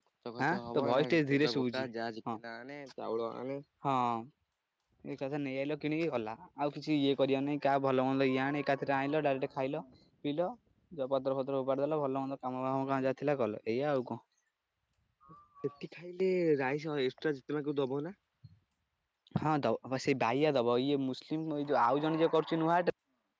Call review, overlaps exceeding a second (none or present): present